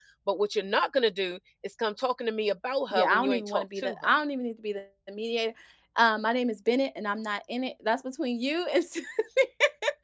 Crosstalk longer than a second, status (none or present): present